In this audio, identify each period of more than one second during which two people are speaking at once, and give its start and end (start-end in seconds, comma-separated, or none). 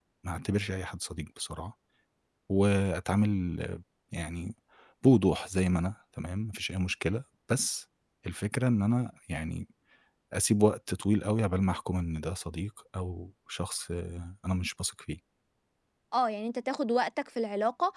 none